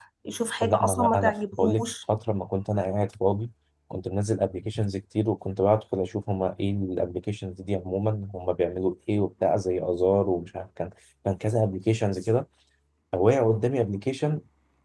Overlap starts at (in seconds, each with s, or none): 0.6 s